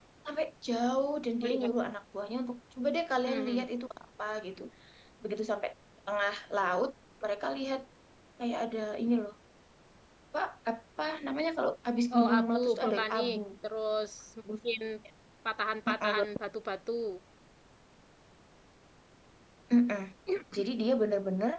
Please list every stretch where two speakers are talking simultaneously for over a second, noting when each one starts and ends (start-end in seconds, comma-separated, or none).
12.1-13.4